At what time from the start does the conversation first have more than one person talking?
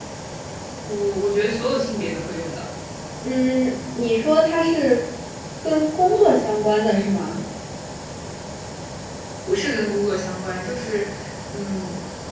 none

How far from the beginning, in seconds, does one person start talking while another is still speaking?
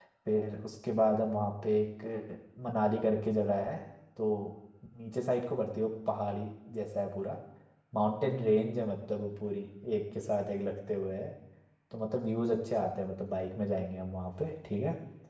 none

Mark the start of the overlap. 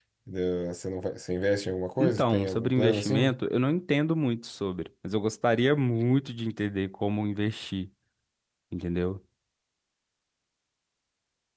2.0 s

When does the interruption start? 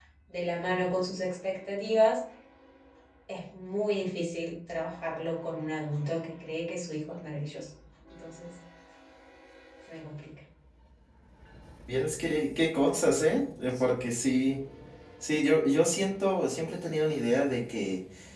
none

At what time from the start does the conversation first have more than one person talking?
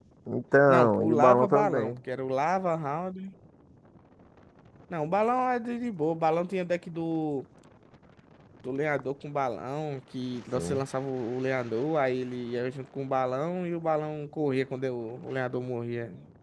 0.7 s

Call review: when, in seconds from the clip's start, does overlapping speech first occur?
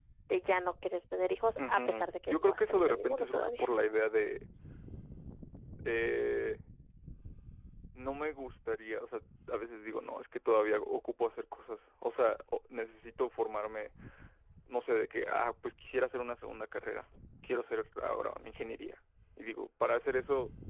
1.6 s

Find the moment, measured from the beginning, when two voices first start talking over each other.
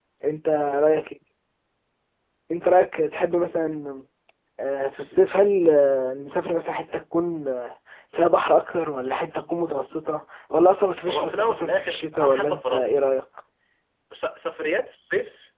11.1 s

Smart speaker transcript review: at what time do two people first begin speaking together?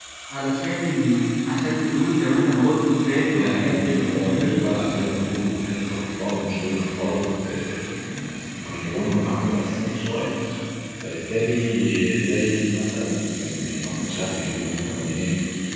3.3 s

